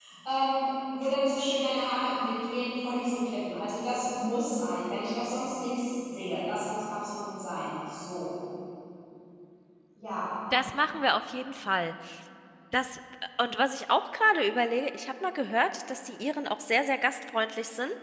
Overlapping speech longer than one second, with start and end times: none

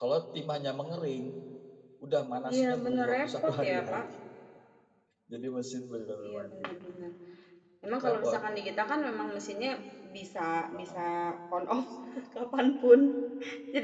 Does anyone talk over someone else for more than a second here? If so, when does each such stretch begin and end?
2.5-4.0

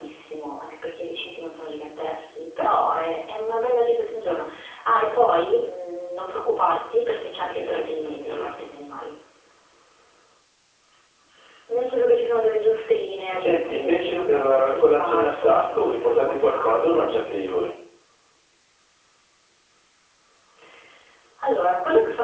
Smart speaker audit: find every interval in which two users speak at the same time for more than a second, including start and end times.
7.4-8.7, 13.3-17.1

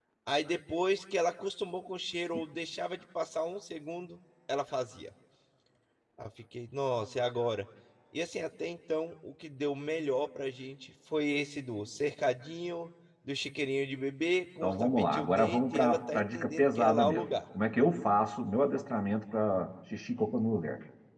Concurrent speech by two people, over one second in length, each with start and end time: 14.6-17.3

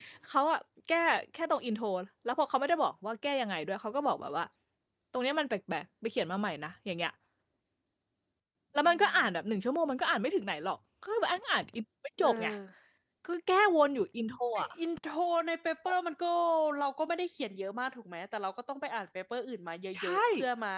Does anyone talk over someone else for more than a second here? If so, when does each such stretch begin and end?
none

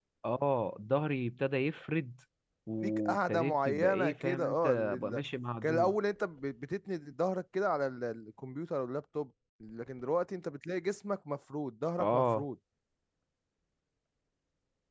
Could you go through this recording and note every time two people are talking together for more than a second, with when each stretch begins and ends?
2.8-5.2

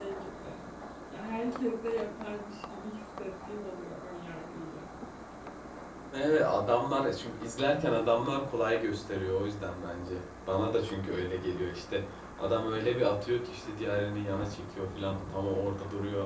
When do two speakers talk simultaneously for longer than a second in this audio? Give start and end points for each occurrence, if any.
none

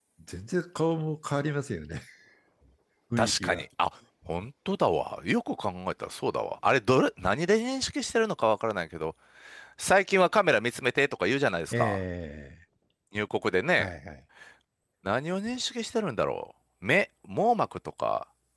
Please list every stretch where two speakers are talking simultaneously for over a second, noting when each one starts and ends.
none

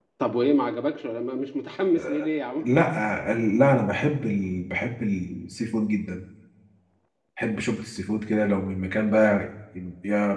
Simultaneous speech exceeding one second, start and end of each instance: none

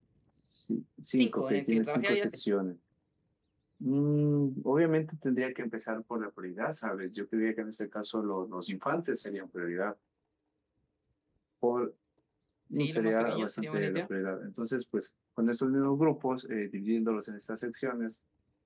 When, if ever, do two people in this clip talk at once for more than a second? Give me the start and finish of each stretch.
1.1-2.4, 12.8-14.0

